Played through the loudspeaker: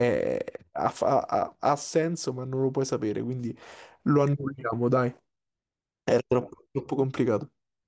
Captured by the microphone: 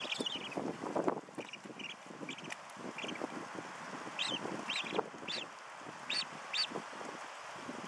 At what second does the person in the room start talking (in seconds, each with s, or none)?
none